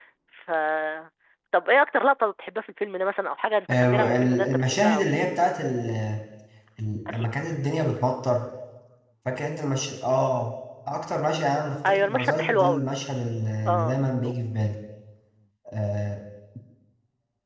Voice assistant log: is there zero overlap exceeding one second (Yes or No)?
No